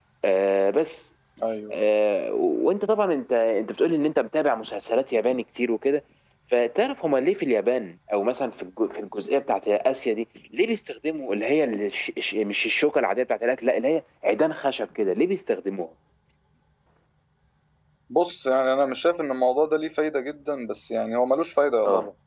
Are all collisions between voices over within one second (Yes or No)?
Yes